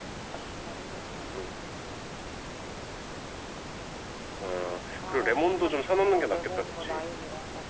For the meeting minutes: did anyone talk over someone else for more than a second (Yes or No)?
Yes